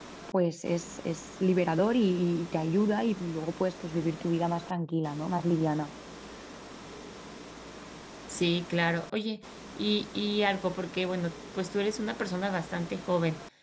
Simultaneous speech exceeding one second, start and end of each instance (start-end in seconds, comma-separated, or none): none